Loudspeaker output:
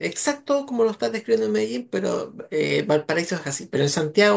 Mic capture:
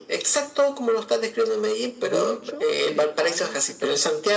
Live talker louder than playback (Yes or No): No